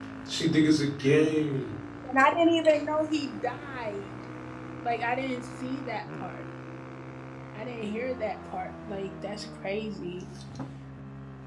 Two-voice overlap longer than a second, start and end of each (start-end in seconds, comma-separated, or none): none